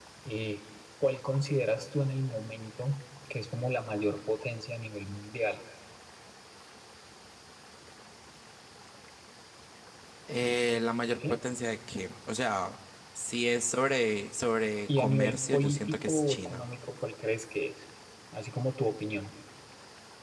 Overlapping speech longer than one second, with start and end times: 14.9-16.7

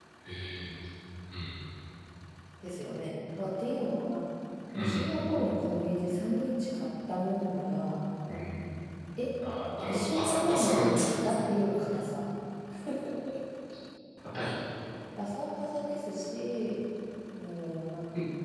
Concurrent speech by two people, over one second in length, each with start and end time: 9.8-11.1

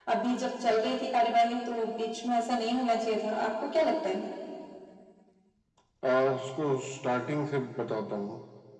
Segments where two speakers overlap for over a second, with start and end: none

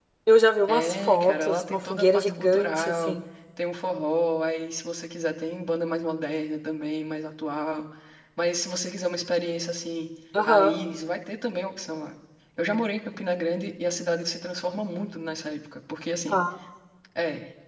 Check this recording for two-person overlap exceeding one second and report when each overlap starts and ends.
0.7-3.2

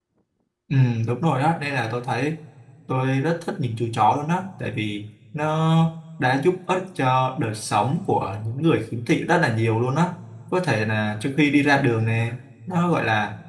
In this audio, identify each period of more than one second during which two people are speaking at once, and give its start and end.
none

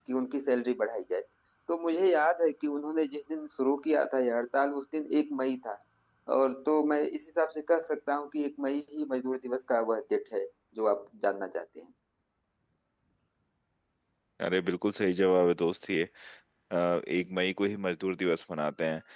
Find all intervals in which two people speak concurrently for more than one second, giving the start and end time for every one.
none

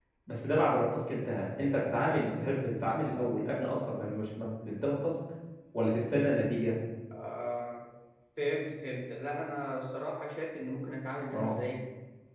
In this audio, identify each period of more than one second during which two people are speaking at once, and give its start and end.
none

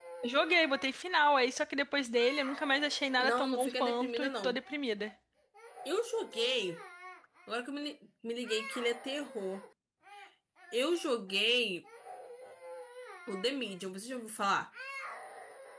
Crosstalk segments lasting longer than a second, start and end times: 3.2-4.6

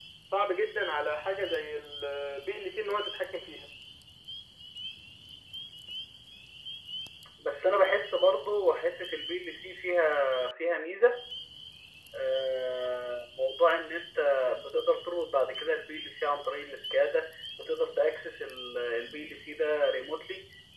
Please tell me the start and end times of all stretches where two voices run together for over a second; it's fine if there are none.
none

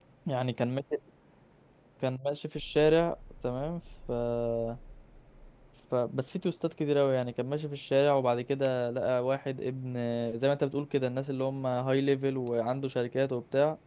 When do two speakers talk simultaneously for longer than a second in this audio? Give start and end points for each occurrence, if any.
none

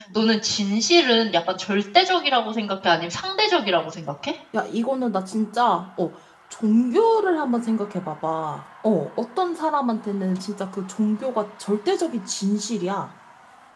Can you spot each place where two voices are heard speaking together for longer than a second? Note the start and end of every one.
none

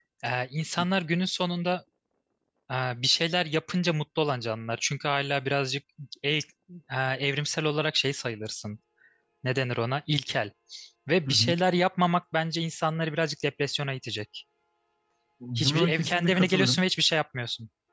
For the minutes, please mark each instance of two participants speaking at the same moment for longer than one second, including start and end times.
15.6-16.8

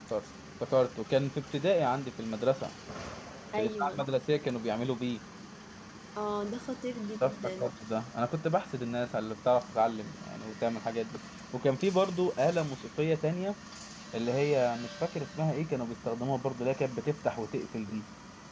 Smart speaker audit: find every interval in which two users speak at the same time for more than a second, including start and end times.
none

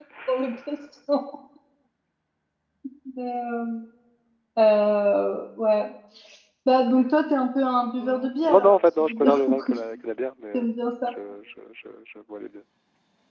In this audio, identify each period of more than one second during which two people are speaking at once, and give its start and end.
8.0-9.8

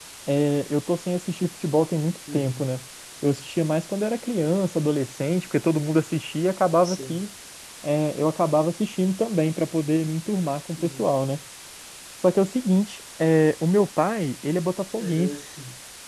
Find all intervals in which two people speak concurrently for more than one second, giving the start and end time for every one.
none

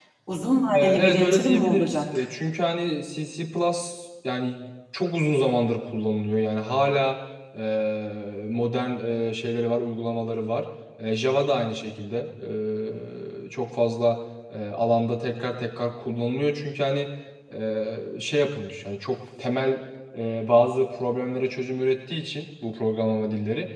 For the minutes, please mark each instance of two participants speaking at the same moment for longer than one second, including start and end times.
0.7-2.2

